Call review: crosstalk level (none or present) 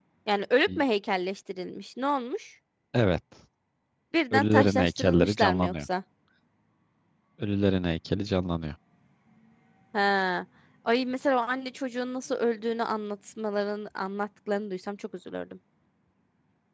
present